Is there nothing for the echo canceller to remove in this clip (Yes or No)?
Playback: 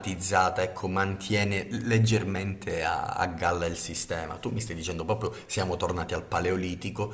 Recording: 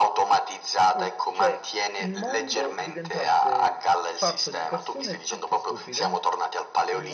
No